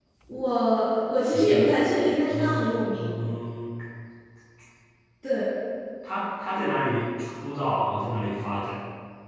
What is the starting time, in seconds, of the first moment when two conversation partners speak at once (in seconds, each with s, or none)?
1.3 s